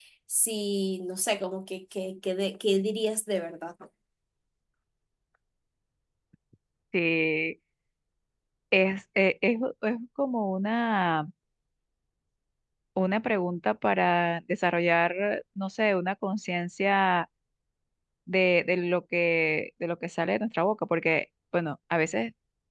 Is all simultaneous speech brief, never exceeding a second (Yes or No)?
Yes